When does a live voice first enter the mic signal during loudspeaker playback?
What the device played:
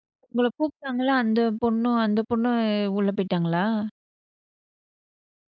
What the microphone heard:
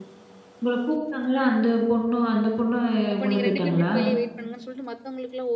3.1 s

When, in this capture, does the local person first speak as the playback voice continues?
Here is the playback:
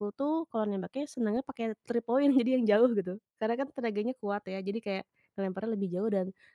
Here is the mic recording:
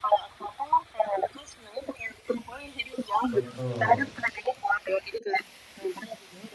3.3 s

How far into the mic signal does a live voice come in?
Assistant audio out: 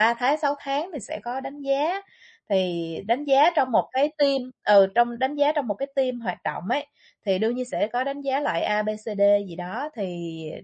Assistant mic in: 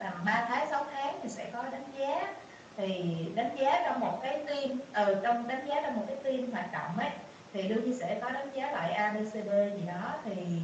none

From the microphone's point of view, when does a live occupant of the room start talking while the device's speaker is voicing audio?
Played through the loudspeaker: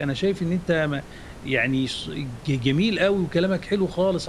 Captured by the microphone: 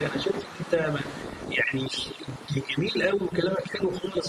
none

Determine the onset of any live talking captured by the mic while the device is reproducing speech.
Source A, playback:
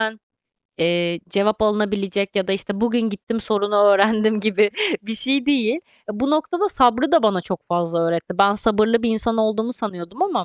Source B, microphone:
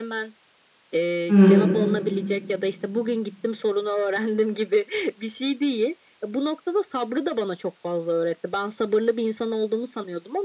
1.3 s

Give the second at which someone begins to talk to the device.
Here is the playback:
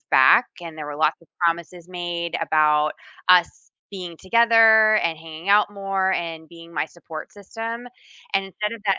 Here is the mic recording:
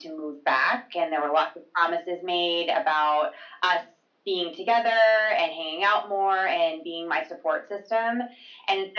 none

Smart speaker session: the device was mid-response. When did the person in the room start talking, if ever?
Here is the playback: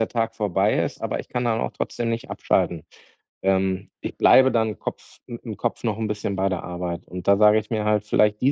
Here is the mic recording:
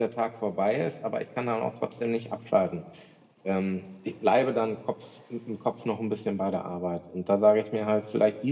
none

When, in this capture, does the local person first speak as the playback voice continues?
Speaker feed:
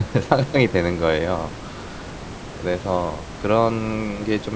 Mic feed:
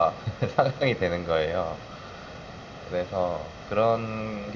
none

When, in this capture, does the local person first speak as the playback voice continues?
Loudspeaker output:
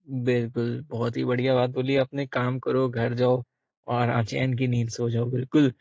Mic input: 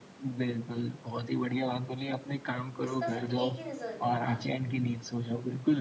2.8 s

